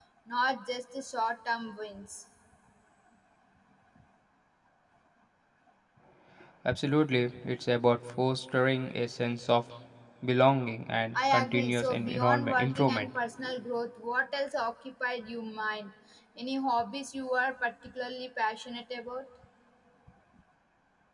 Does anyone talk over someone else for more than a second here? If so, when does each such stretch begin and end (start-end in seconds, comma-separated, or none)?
11.2-13.1